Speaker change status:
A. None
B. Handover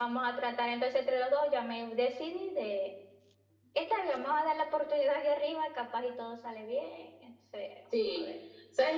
B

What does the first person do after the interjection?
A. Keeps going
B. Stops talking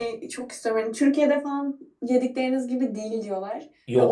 A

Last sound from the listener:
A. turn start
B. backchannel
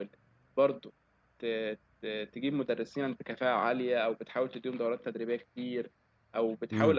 B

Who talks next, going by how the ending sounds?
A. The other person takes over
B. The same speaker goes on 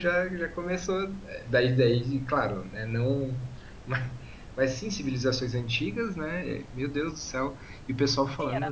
A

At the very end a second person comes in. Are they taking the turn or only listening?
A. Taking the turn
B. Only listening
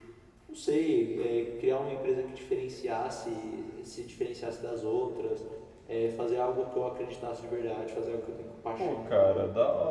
A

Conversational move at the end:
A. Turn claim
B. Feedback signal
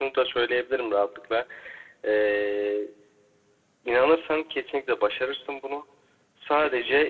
B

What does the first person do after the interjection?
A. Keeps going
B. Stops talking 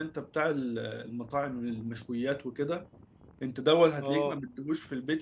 A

